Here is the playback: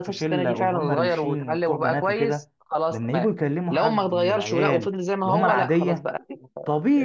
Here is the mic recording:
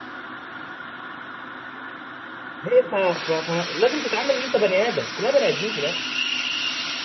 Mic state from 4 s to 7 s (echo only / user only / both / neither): user only